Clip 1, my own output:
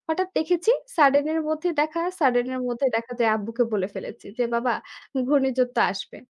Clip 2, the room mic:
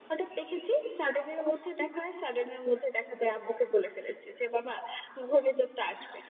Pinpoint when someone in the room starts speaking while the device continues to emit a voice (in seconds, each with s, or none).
none